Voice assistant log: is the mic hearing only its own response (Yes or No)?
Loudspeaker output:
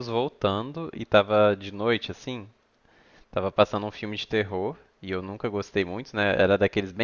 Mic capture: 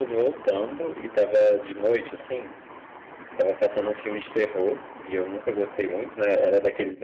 Yes